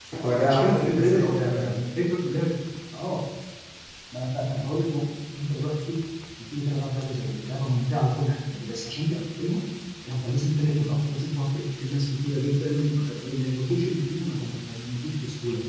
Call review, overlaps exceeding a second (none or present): present